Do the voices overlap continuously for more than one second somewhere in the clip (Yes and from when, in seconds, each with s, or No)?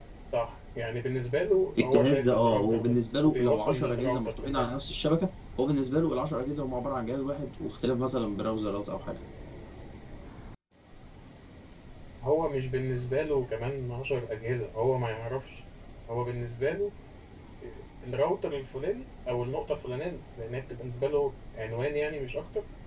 Yes, from 1.8 s